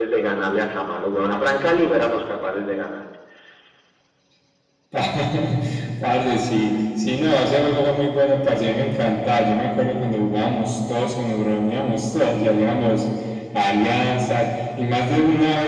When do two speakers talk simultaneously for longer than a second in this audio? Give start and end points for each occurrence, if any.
none

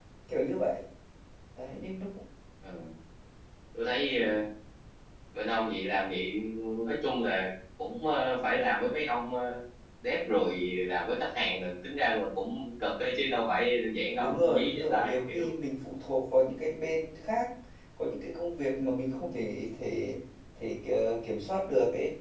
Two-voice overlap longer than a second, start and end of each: 14.2-15.5

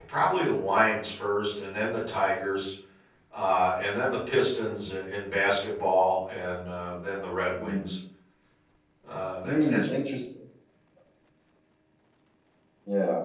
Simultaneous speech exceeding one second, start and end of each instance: none

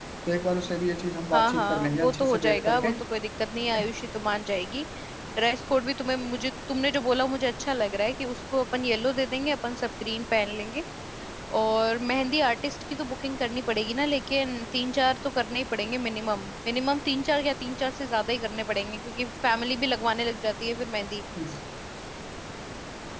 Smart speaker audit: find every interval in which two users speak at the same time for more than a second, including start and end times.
1.3-2.9

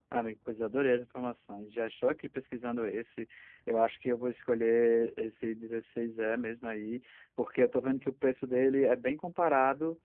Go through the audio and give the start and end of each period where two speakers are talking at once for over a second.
none

